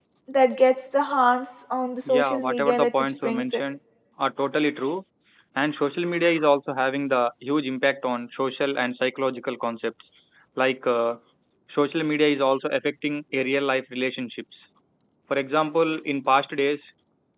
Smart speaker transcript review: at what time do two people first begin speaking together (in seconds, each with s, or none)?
2.0 s